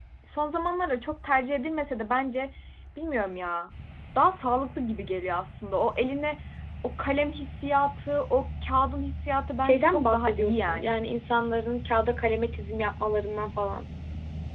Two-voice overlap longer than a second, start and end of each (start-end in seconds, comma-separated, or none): 9.6-11.0